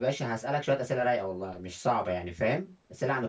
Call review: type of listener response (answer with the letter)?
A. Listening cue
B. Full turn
A